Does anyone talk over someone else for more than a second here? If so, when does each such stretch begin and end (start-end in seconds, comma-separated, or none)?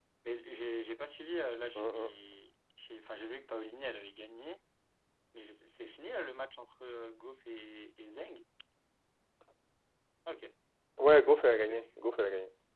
none